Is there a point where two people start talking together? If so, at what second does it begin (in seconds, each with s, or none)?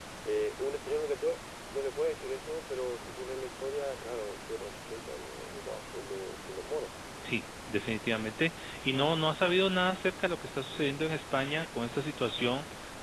none